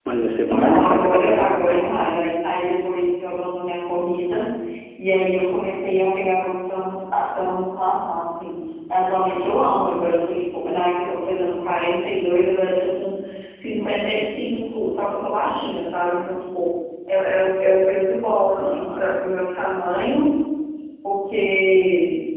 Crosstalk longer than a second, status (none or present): present